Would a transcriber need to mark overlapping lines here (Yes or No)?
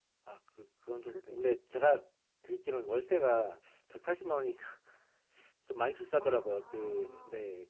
Yes